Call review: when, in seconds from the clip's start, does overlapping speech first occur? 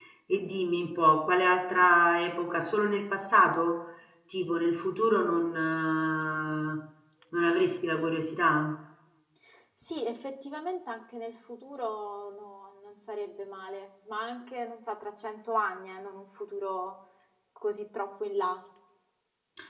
none

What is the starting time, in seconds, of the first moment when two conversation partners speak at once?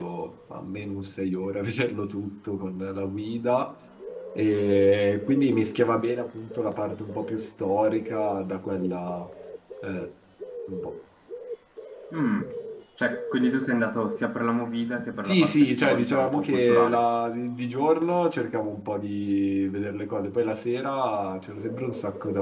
15 s

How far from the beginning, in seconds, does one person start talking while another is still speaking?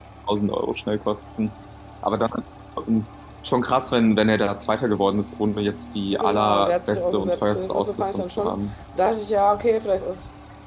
6 s

